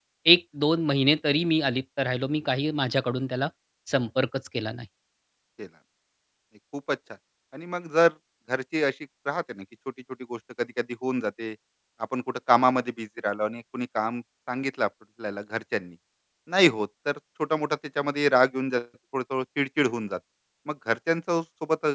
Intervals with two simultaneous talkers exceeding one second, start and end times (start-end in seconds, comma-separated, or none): none